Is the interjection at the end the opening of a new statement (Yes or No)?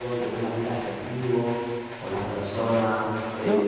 Yes